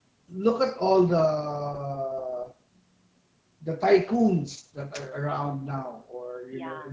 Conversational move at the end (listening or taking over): listening